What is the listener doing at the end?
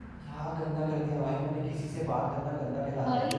taking over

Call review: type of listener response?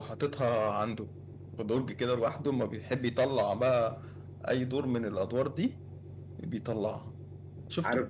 taking over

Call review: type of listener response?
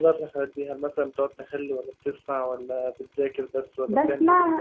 taking over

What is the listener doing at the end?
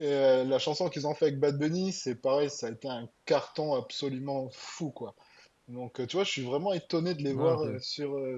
listening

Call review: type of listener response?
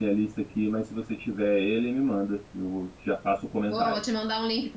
taking over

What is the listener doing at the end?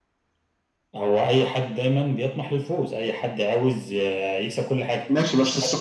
taking over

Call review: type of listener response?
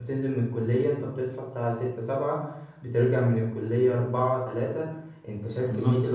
listening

